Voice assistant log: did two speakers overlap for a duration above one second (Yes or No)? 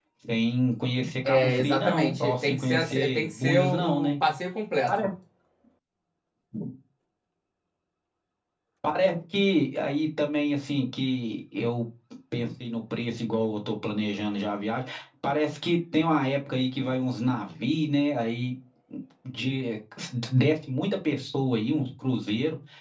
Yes